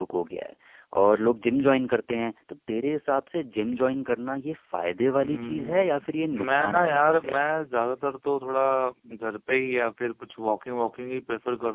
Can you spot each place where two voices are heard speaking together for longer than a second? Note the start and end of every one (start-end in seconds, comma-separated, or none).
5.2-7.4